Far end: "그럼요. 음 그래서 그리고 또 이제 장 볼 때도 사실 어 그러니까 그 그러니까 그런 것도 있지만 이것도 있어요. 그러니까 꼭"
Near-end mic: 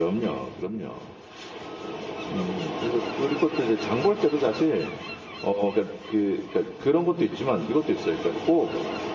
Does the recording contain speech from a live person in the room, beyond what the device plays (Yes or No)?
No